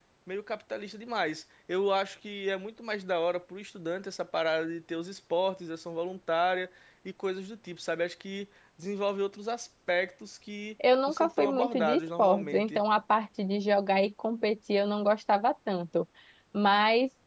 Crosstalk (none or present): present